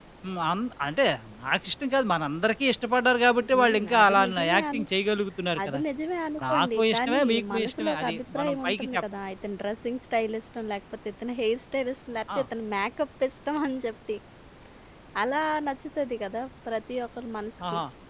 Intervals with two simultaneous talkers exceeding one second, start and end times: 3.5-4.8, 6.5-9.0

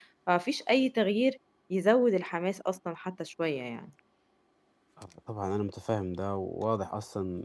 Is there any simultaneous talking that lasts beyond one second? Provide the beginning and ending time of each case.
none

